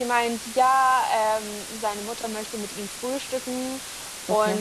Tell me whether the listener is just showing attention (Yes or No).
Yes